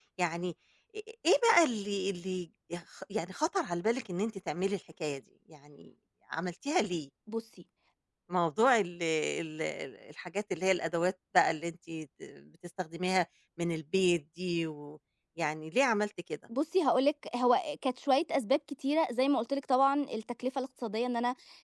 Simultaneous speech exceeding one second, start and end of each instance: none

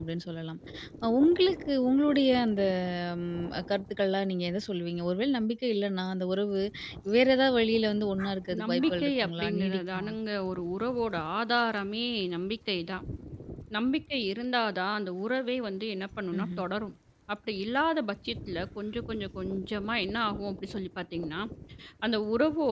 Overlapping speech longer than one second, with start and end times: 8.6-10.1

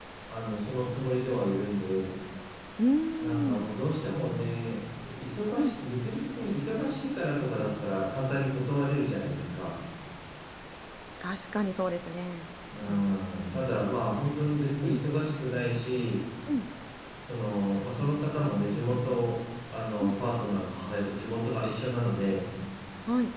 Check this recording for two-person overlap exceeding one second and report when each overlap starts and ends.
none

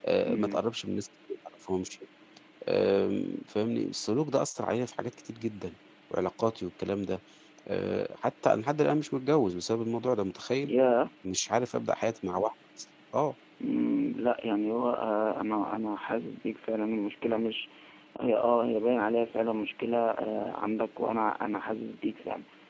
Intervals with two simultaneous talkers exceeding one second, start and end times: none

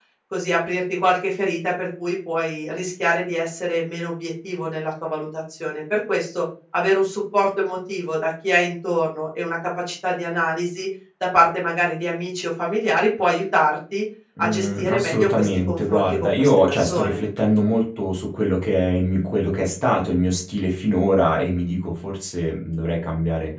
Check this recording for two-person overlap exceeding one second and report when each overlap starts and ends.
14.4-17.2

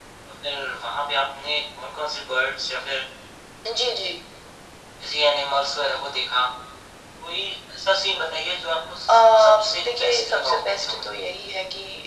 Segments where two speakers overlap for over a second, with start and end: 9.1-11.1

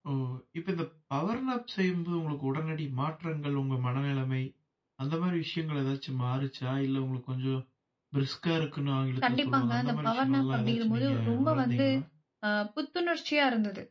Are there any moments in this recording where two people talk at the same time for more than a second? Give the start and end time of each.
9.2-11.8

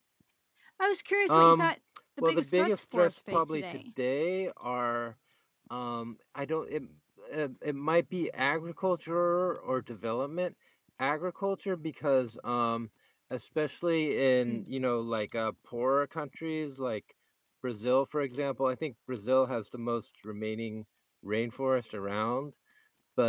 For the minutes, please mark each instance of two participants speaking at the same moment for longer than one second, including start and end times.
2.2-3.8

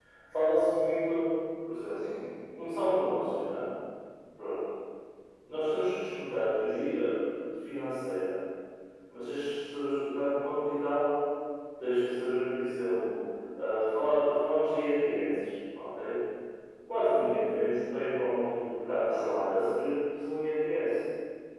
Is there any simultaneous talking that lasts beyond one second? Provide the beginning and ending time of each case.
none

